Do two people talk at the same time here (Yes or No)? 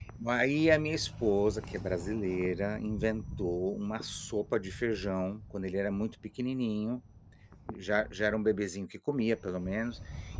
No